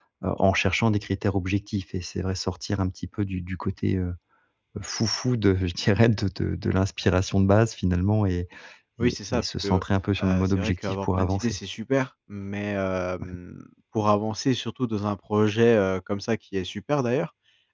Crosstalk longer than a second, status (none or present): present